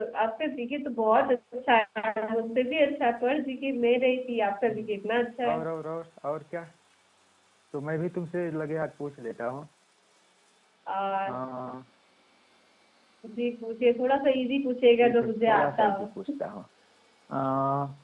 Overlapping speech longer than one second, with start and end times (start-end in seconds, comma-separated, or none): 15.0-16.3